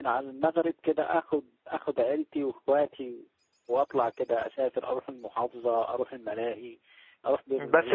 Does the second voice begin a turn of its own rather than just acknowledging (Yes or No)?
Yes